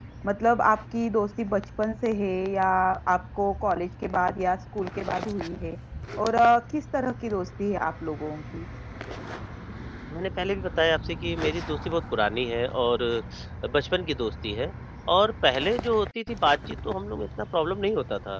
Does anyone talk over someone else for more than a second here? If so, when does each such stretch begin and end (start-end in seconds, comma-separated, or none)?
none